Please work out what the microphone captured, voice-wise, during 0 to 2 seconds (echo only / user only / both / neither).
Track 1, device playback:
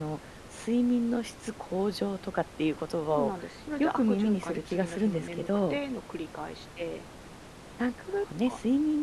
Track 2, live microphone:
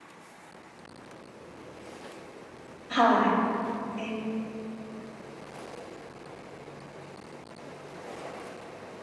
neither